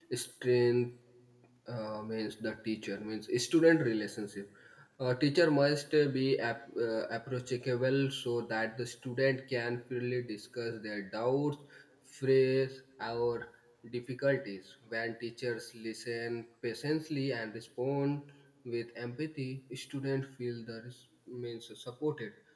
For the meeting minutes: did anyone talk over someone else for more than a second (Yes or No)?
No